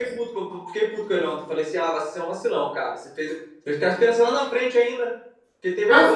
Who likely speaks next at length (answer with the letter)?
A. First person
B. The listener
A